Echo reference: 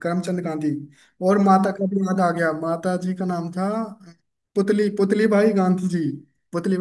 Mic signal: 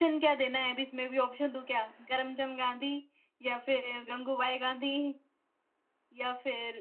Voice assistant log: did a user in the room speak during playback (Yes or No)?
Yes